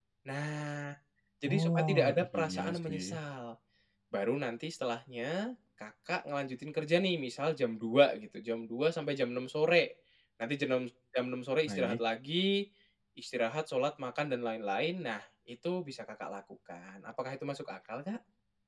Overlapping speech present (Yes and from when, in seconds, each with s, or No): Yes, from 1.5 s